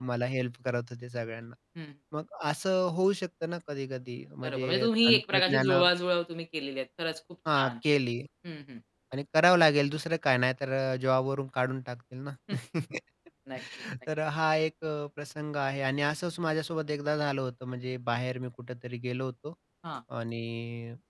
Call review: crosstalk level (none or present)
present